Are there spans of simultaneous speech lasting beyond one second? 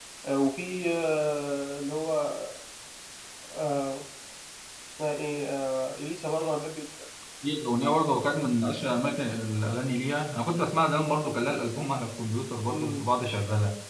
No

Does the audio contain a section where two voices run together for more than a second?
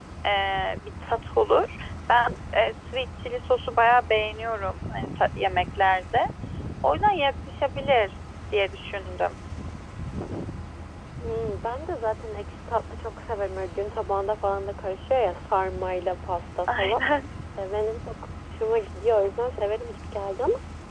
No

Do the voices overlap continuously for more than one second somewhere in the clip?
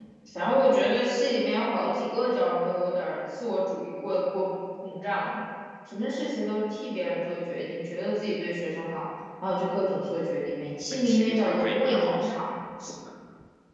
Yes, from 10.9 s

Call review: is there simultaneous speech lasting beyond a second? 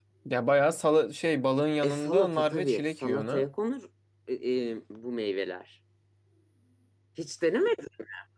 Yes, from 1.8 s

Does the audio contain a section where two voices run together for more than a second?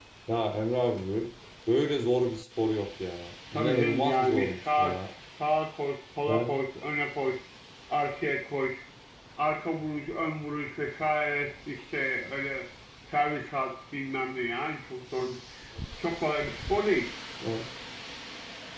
Yes, from 3.5 s

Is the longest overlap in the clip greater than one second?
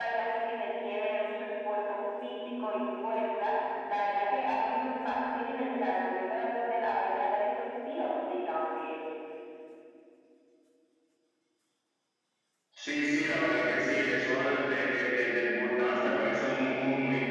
No

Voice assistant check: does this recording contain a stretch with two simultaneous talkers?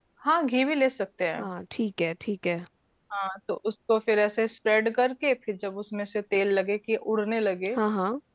No

